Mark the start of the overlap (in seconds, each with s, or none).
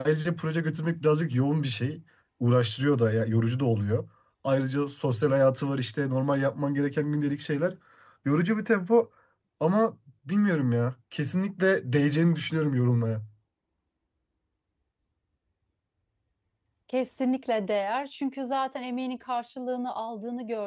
none